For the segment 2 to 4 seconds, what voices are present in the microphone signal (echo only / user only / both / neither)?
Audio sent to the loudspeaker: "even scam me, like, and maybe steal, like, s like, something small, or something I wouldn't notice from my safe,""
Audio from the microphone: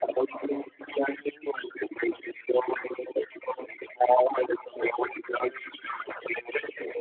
echo only